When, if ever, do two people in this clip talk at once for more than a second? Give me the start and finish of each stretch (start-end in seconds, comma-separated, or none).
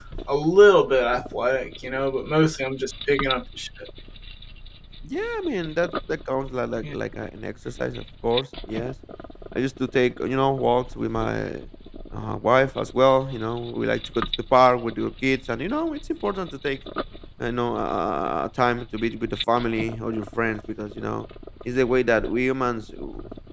none